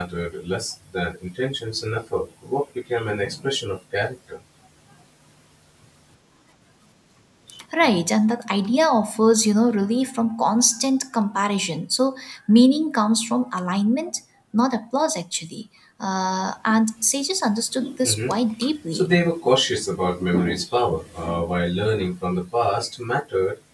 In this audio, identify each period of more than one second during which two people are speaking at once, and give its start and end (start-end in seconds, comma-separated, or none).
none